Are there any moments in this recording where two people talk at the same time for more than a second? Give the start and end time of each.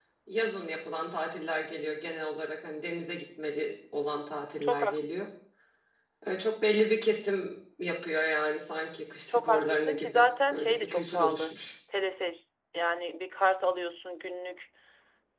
9.3-11.5

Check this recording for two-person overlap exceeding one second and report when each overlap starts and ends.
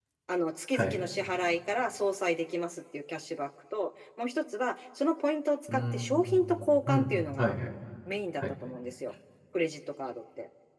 5.7-7.6

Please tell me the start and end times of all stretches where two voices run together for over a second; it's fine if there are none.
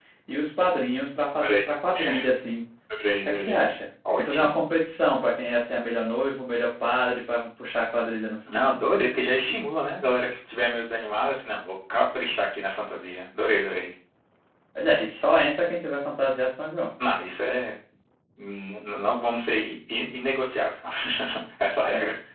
none

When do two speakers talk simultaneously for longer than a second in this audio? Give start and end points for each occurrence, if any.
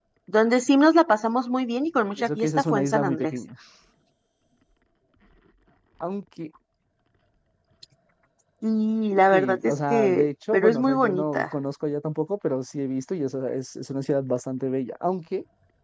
2.2-3.4, 9.3-11.5

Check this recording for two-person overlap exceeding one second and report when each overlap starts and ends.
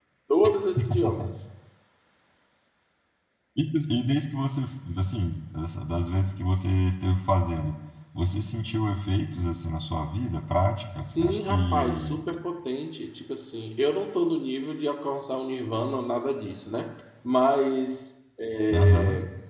10.9-12.2

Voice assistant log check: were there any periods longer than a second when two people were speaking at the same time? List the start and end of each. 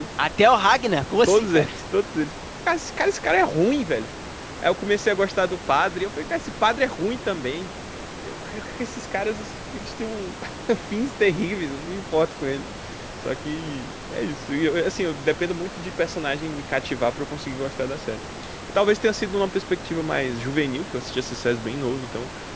none

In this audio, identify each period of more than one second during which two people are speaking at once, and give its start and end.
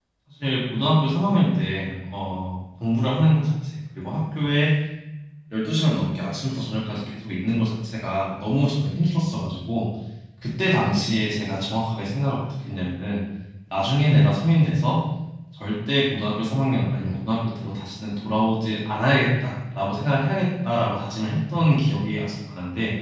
none

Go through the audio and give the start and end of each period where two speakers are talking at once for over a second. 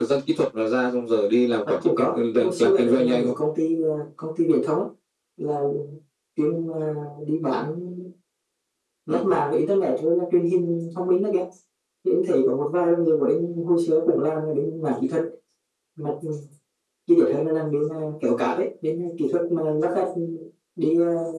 1.6-3.3

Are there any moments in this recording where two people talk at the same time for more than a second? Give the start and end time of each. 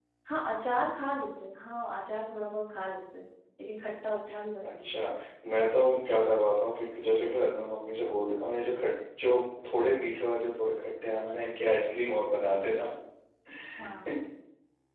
none

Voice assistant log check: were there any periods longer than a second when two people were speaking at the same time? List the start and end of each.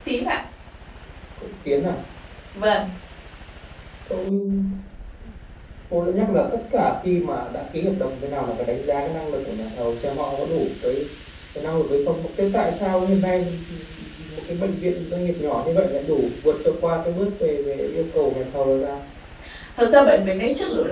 none

